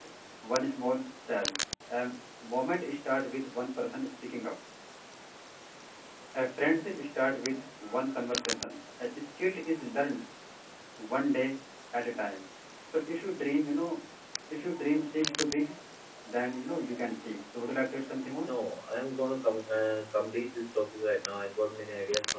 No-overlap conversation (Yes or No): Yes